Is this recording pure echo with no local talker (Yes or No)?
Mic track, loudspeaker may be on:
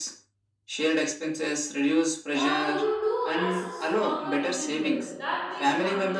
No